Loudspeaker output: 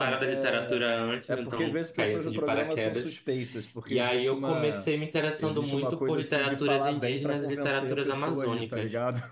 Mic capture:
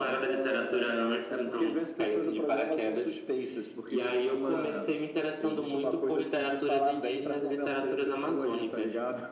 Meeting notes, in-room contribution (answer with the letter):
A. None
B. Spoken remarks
A